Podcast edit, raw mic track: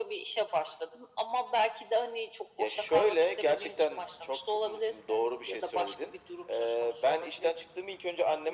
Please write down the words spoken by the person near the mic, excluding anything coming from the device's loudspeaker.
none

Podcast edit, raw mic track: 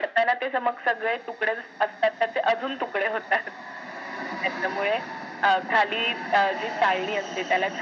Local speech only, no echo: none

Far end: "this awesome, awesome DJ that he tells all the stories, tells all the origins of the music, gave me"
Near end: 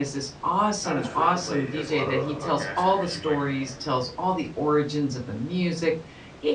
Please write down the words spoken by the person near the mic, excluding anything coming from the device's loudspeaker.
not as frequently as a lot of other podcasts. I mean, you might

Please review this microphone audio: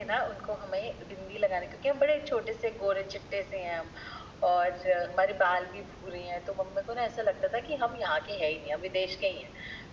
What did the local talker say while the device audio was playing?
none

